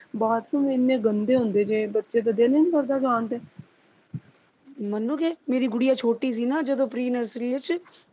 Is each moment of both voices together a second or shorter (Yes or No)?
Yes